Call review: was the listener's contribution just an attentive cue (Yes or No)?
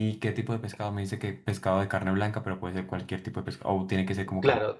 No